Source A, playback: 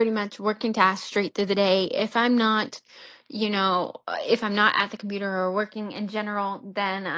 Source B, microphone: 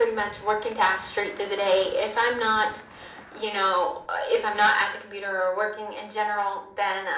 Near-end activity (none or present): none